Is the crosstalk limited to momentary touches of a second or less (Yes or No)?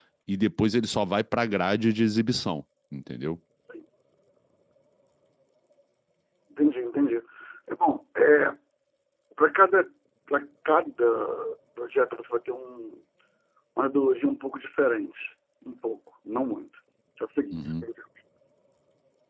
Yes